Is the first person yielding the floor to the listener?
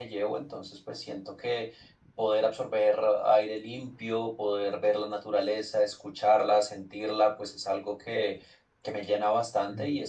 No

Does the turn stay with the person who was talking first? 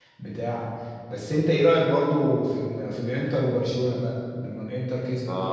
No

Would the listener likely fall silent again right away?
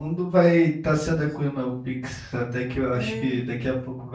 Yes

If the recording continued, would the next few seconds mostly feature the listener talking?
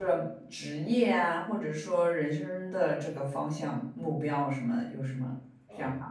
Yes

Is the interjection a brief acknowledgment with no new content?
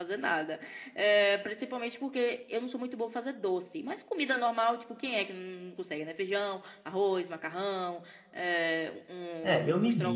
No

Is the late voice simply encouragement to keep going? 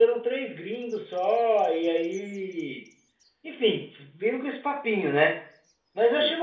Yes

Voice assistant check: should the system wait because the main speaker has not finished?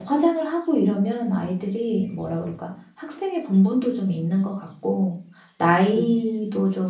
Yes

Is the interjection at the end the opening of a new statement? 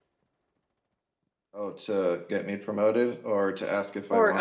Yes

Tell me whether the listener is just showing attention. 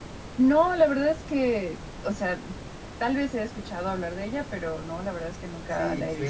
No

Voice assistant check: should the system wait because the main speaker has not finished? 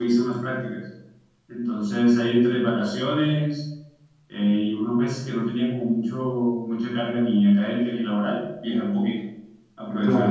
No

